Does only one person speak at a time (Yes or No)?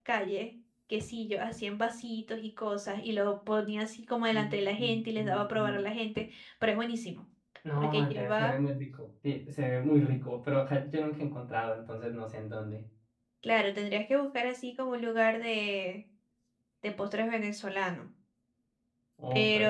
No